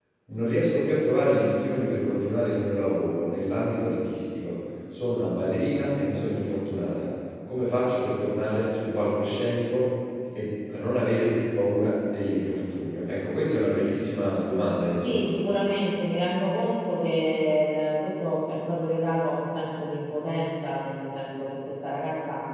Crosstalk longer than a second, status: none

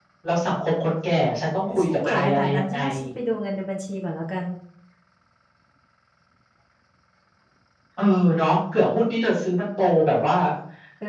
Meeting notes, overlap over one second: present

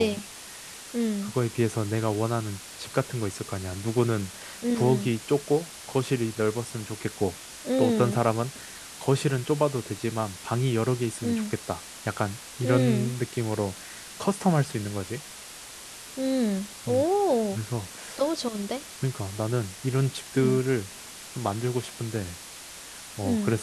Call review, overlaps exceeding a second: none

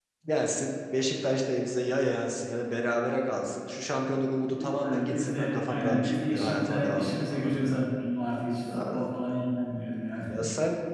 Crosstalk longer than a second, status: present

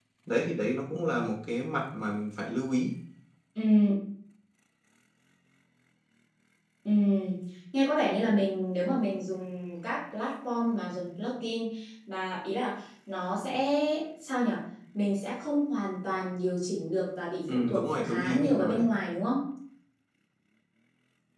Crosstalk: present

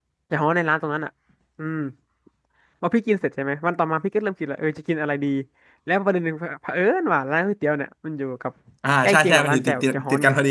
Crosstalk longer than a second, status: present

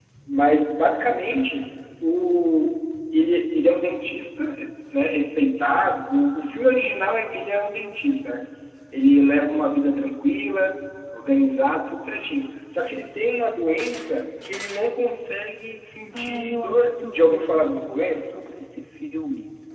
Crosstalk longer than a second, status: present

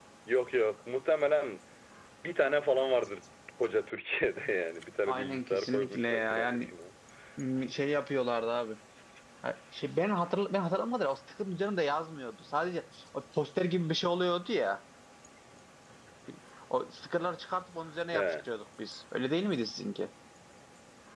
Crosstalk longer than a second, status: present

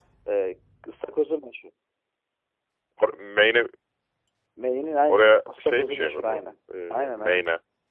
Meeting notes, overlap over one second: present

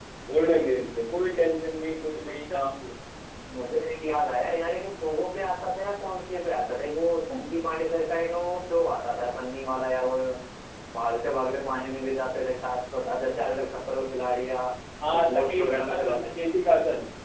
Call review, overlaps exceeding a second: present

